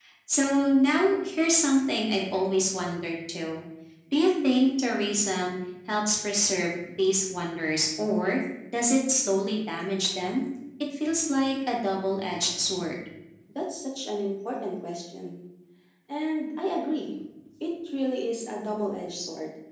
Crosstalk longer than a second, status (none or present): none